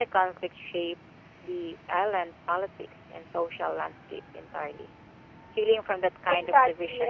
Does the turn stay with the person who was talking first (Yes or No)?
No